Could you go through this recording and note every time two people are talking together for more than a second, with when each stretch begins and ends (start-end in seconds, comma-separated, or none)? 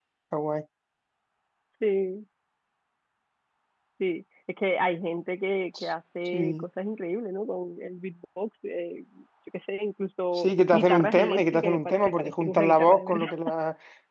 10.4-13.2